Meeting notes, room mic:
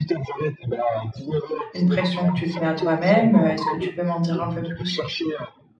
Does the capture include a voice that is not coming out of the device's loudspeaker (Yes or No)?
Yes